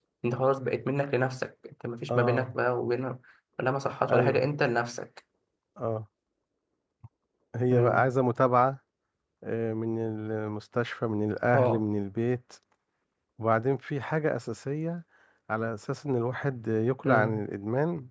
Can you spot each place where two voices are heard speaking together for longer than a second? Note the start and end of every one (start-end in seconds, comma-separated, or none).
none